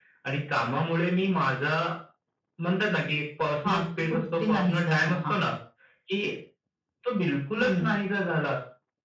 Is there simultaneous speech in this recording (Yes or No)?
Yes